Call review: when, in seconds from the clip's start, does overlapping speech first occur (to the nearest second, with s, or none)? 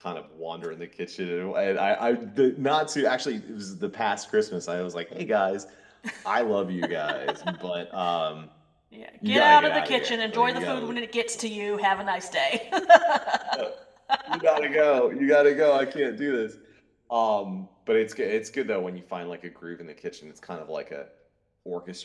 9 s